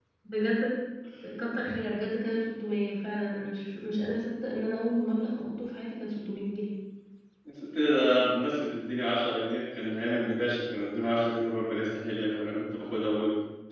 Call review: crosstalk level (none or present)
none